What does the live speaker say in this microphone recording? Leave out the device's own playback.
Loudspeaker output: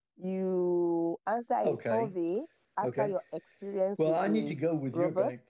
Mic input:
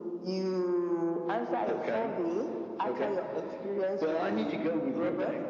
none

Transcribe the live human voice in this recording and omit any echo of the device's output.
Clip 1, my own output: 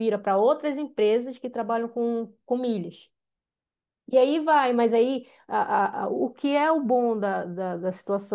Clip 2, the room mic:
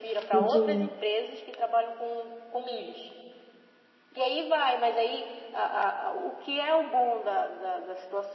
Entendi.

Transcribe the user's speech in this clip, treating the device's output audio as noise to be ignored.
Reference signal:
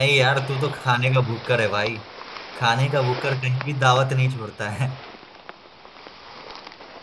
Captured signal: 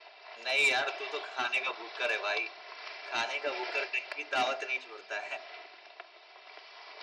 none

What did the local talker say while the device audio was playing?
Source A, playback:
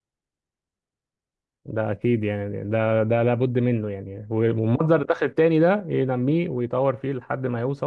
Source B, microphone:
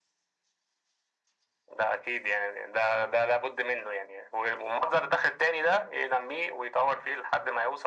none

